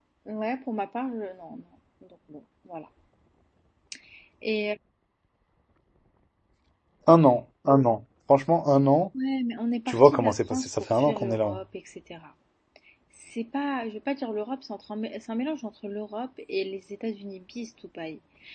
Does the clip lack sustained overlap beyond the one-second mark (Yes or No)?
No